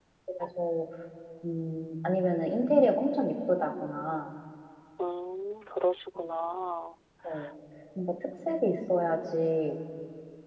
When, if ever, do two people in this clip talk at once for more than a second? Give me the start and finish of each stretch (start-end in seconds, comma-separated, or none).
none